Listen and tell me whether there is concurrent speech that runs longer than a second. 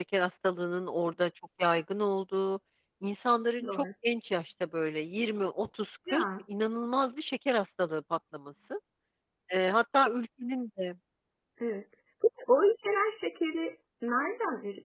No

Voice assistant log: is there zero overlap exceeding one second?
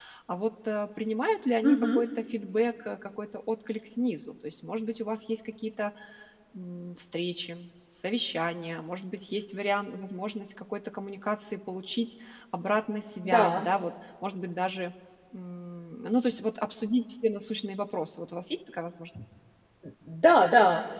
Yes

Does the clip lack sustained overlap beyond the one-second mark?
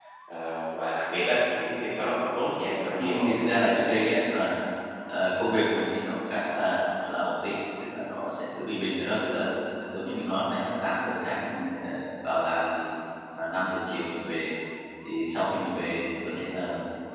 Yes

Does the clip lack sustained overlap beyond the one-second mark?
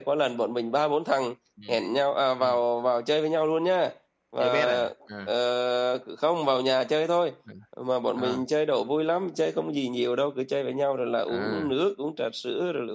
Yes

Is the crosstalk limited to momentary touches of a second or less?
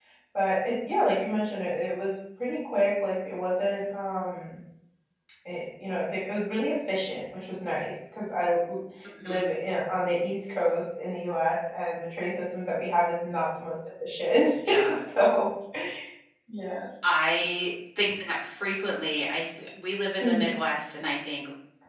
Yes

